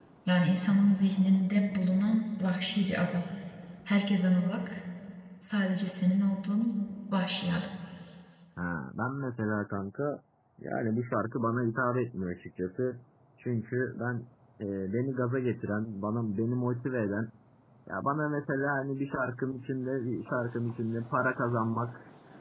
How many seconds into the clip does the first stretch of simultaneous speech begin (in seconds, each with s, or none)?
none